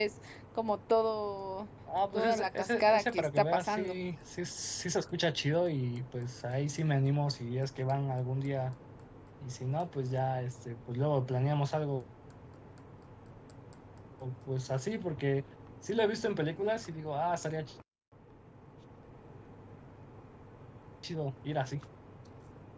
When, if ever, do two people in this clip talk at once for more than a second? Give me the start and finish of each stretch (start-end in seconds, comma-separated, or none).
2.1-4.0